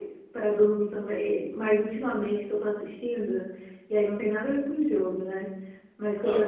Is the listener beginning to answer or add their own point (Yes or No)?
No